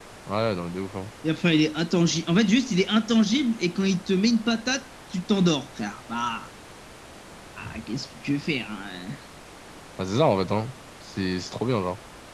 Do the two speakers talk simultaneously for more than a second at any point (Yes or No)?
No